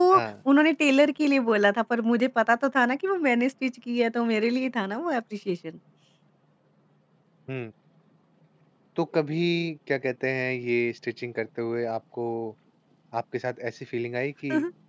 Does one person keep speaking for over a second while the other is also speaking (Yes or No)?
No